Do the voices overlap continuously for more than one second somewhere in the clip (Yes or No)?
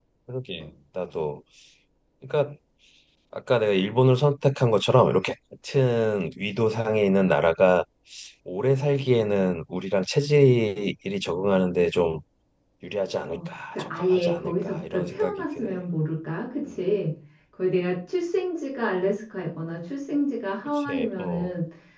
Yes